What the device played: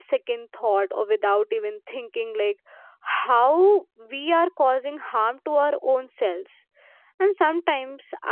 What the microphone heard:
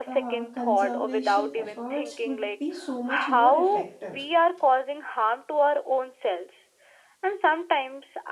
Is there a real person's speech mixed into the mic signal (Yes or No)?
Yes